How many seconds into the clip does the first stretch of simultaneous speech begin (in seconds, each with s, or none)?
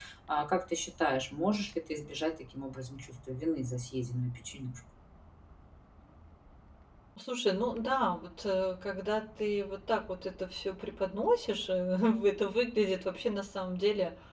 none